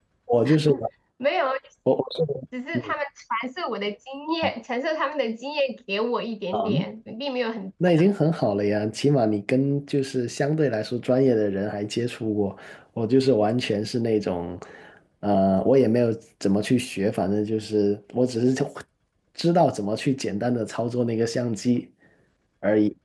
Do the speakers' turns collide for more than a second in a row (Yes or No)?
No